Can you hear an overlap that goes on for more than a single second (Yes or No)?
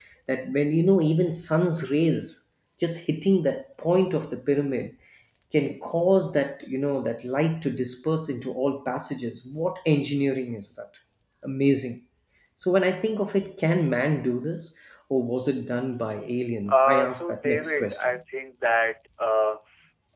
Yes